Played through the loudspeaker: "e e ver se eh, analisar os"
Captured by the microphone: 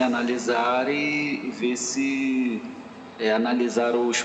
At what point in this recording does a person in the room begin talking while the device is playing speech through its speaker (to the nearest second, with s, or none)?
none